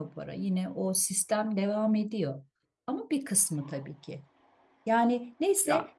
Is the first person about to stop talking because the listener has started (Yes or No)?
No